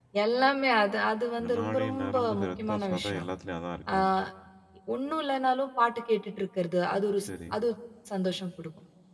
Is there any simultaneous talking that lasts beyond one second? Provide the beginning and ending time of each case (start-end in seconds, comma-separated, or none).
1.5-3.2